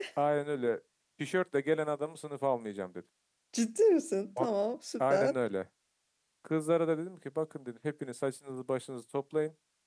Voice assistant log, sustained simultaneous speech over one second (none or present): none